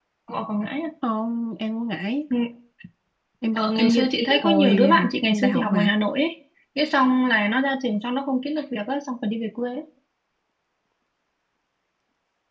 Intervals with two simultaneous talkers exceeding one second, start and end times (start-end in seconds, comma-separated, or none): 3.5-5.9